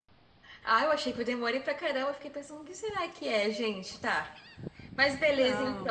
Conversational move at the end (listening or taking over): taking over